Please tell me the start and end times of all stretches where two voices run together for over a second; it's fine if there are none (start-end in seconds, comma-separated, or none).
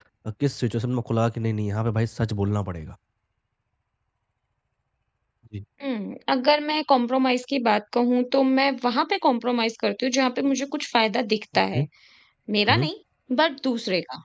none